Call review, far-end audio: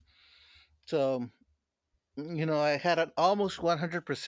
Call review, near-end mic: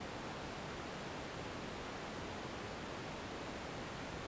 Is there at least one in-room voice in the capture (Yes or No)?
No